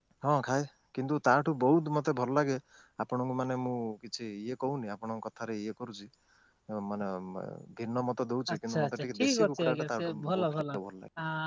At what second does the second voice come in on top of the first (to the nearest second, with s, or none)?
9 s